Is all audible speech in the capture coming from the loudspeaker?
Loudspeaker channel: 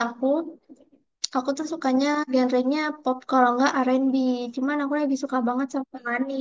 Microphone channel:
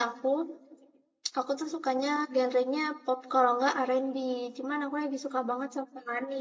Yes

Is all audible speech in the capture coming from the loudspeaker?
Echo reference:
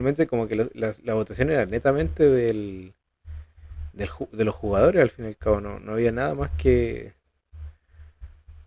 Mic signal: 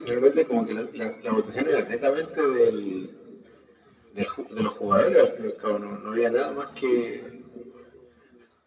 Yes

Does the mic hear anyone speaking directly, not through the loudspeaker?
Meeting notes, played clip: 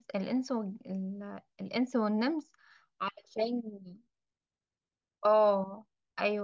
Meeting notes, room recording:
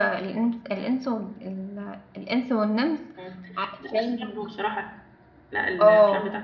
Yes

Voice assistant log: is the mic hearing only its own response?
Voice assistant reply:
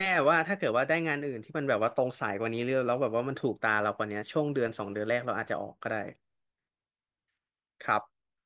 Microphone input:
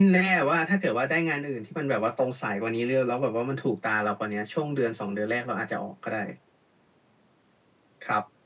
Yes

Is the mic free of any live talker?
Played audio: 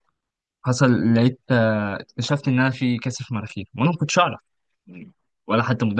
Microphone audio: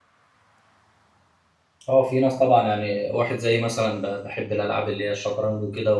No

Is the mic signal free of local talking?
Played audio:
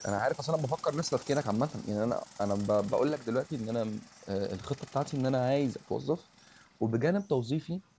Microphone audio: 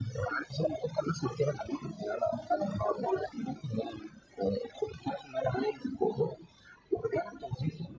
Yes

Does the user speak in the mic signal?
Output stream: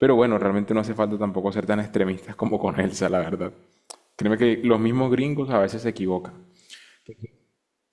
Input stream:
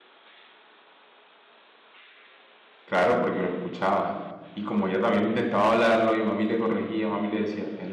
Yes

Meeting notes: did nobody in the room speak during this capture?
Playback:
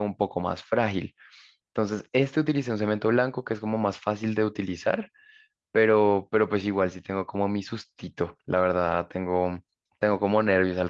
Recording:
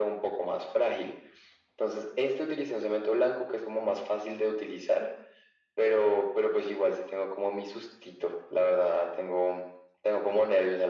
Yes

